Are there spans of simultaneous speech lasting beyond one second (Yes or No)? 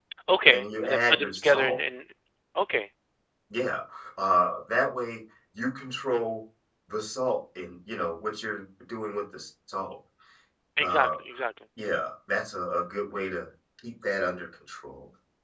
Yes